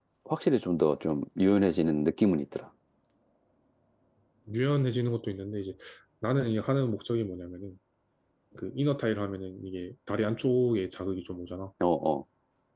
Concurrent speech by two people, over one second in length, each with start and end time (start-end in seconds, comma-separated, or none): none